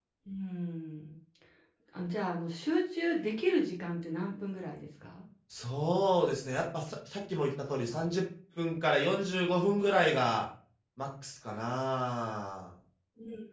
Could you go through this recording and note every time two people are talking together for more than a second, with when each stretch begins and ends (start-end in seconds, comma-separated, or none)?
none